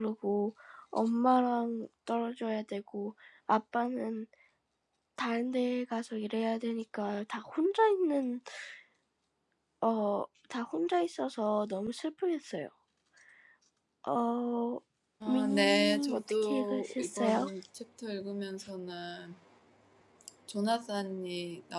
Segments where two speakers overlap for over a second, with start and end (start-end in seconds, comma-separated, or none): 15.3-17.4